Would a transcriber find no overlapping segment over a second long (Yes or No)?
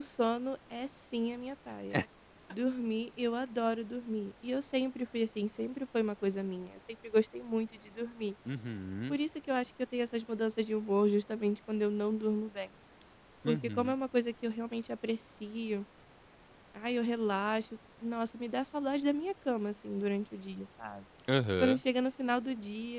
Yes